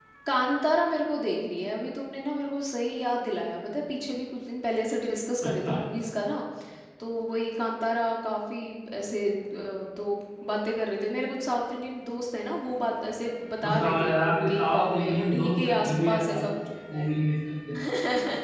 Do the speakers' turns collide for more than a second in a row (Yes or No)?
Yes